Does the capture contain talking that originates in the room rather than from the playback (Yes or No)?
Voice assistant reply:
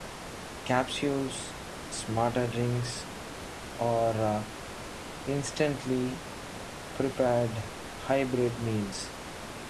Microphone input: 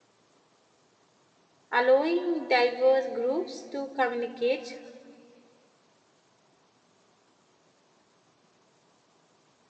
Yes